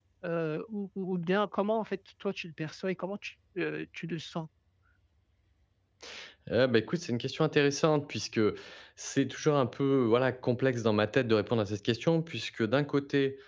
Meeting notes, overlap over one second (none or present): none